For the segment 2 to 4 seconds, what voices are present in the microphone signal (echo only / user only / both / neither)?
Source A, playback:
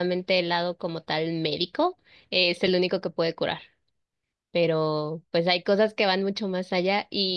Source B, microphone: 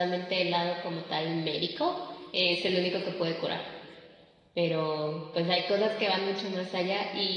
echo only